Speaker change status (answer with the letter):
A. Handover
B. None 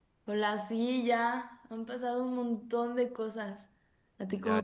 A